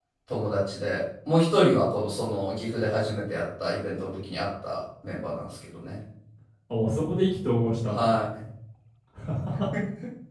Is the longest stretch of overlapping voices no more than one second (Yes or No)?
Yes